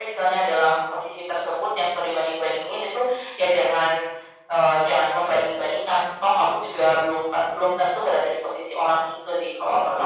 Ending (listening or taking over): taking over